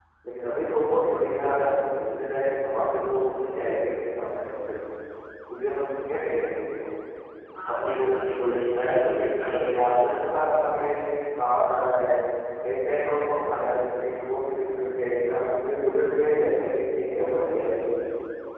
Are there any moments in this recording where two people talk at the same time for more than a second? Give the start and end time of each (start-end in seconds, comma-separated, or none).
7.7-10.3